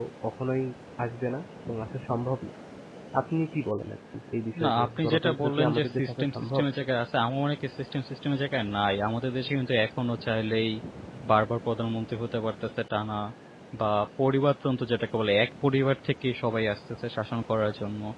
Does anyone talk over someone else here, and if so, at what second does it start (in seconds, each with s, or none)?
4.6 s